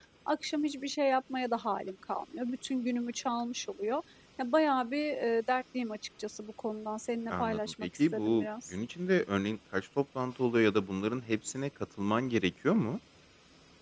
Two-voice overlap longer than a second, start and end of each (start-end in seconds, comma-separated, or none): 7.3-8.8